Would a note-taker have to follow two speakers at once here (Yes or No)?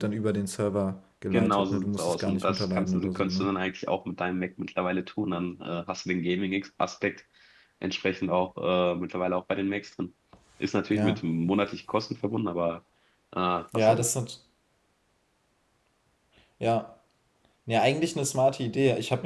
Yes